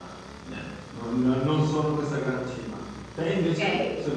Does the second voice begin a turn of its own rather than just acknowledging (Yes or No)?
Yes